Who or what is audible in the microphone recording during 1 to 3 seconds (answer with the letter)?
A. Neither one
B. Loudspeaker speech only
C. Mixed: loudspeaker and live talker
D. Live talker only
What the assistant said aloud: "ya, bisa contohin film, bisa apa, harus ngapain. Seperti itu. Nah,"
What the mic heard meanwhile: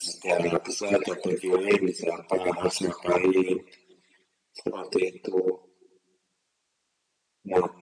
B